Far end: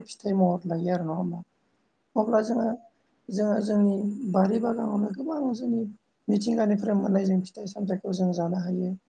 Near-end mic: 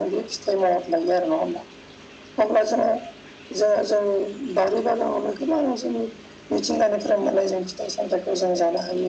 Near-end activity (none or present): none